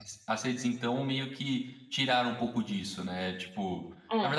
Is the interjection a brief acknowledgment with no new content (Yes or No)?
Yes